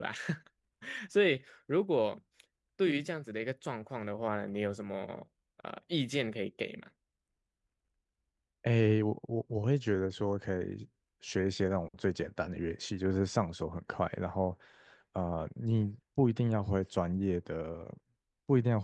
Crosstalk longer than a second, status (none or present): none